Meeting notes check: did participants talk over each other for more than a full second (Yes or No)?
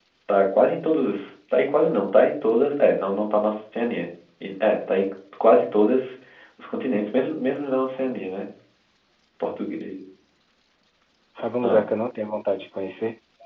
No